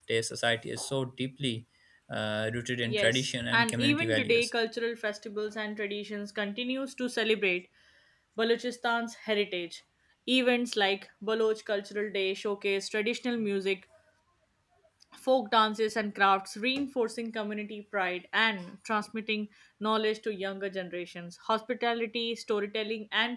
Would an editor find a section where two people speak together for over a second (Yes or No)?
Yes